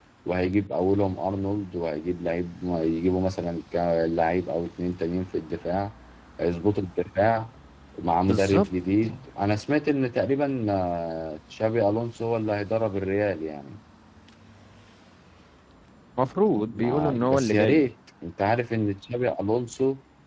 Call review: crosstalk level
present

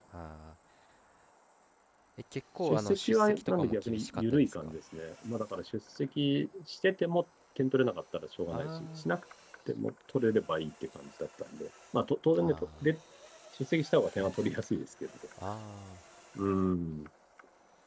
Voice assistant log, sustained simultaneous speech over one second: present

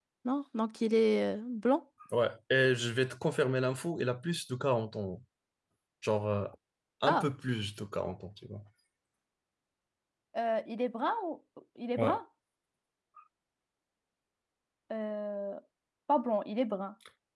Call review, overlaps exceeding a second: none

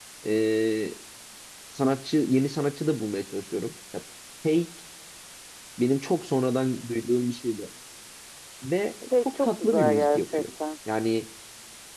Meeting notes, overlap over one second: present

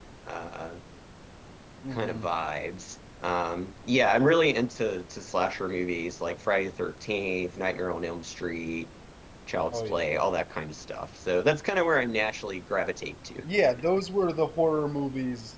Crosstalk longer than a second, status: none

